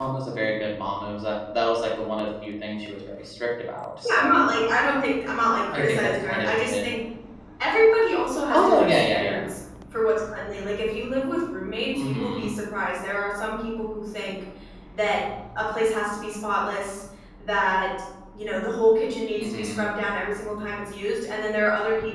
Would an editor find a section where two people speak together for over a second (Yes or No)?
Yes